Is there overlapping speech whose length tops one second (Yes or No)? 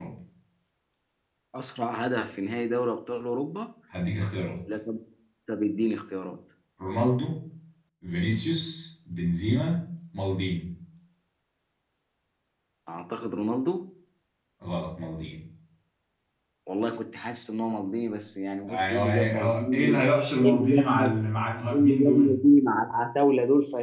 Yes